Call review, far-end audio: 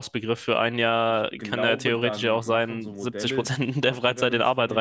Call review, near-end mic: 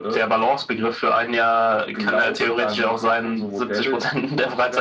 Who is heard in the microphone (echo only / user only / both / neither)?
echo only